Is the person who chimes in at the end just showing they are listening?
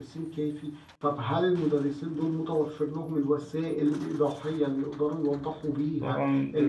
No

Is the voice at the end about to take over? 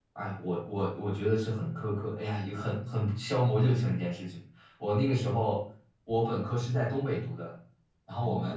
No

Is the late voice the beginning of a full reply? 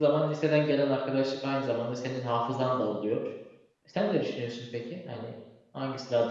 Yes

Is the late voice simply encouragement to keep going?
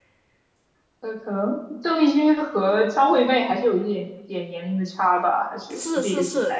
No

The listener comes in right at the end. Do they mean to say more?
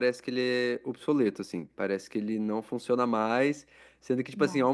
No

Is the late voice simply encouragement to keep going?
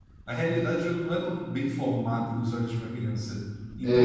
Yes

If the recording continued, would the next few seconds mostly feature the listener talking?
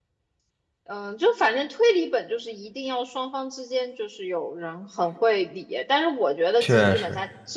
No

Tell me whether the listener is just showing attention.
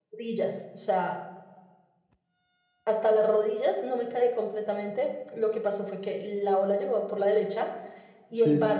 Yes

